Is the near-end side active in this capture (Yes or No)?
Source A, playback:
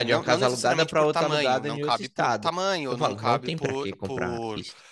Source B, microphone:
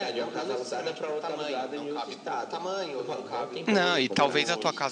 Yes